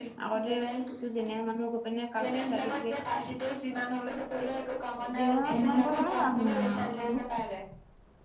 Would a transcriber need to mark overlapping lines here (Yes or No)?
Yes